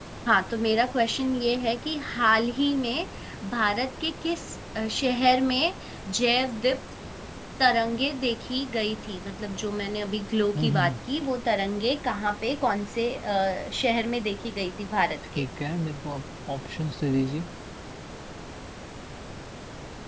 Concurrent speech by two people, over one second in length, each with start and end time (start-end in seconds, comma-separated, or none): none